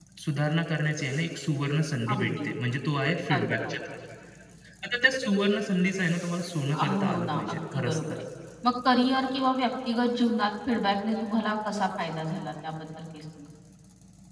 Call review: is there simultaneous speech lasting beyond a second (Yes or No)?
Yes